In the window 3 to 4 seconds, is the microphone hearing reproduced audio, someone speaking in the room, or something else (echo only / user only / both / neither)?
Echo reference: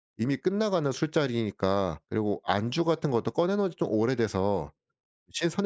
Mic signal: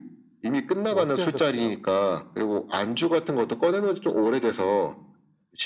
echo only